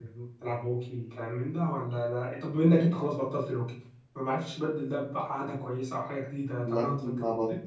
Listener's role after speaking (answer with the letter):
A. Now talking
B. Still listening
A